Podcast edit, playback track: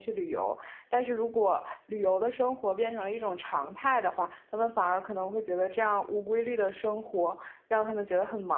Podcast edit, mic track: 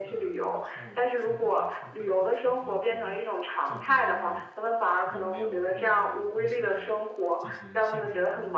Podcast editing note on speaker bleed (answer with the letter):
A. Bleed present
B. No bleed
A